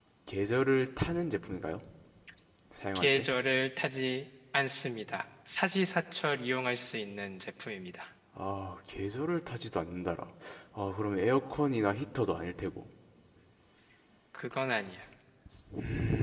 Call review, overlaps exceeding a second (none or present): none